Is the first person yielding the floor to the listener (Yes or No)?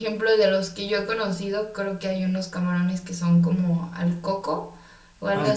No